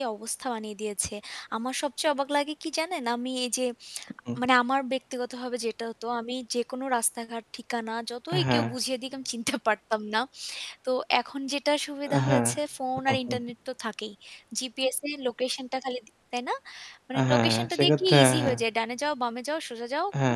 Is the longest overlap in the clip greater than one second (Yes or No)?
Yes